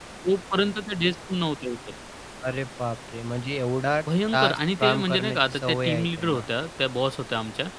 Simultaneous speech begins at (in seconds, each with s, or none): 4.3 s